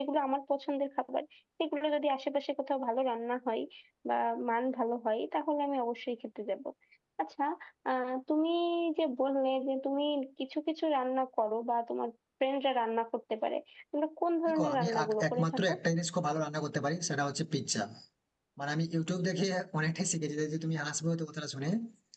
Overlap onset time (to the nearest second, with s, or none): 14 s